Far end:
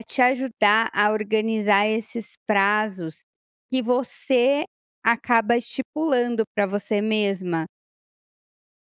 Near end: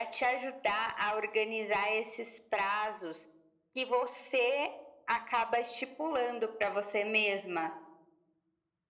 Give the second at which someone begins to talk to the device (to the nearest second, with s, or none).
none